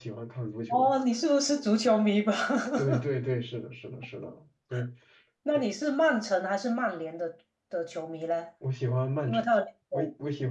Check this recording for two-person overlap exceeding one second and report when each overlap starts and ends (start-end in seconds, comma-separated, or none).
none